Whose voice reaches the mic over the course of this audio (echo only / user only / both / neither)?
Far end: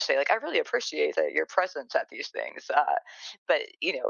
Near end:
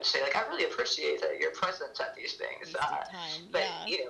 both